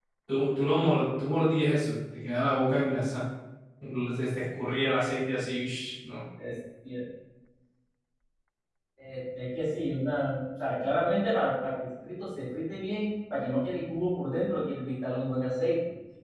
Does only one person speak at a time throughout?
Yes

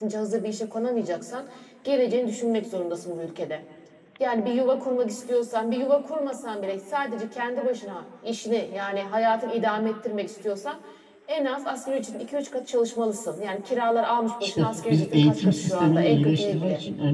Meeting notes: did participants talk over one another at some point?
Yes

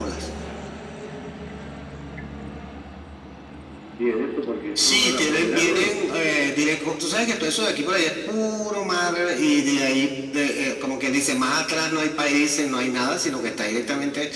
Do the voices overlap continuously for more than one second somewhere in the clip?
Yes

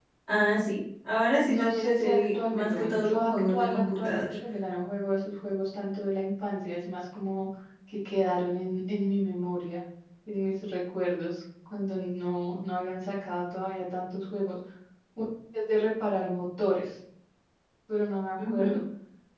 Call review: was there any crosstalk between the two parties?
Yes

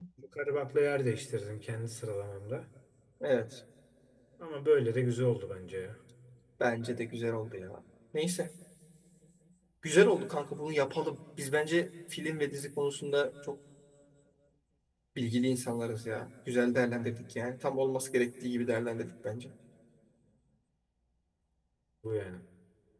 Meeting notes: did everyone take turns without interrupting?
Yes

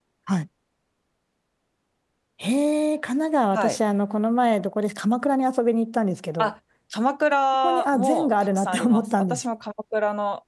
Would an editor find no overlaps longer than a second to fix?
No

